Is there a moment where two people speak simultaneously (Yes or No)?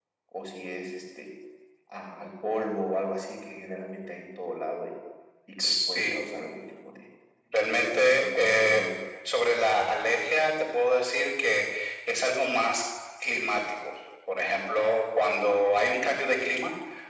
Yes